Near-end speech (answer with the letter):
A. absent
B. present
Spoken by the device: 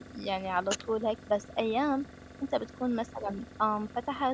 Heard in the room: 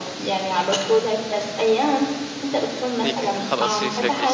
B